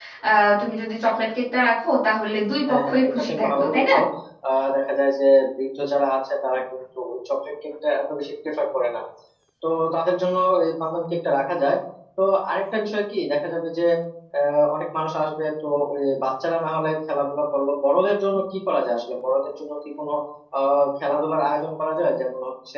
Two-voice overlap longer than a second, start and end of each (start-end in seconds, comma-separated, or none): 2.7-3.9